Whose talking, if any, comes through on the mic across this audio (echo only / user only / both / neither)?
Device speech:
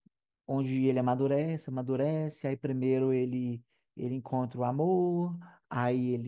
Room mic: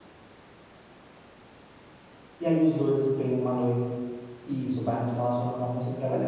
user only